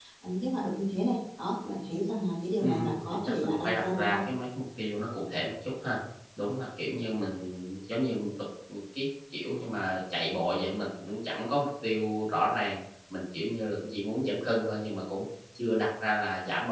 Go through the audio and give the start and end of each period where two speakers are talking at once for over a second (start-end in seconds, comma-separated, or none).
2.6-4.2